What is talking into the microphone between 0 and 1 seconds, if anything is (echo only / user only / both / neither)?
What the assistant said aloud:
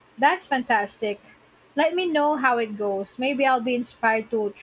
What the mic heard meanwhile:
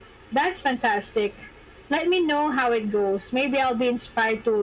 echo only